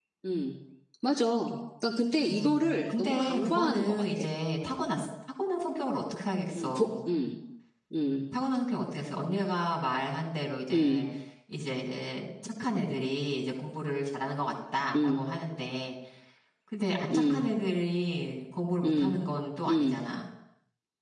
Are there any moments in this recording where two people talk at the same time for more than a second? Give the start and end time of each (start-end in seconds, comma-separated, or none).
2.3-4.2